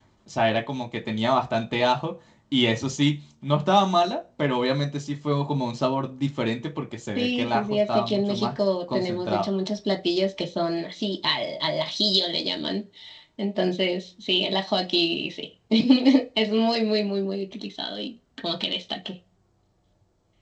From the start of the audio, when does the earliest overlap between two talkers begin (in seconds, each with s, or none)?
7.2 s